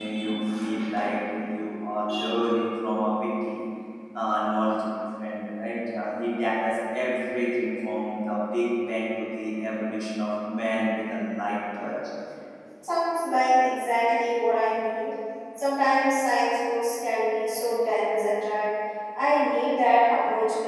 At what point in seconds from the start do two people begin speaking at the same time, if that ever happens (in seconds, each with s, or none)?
none